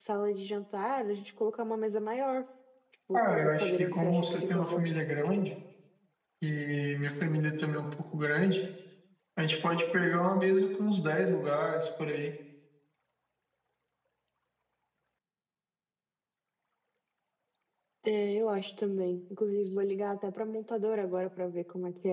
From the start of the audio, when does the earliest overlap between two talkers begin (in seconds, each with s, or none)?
3.1 s